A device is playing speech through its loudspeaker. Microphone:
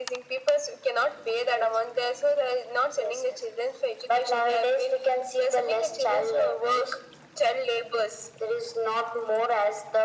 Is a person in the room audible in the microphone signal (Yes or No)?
No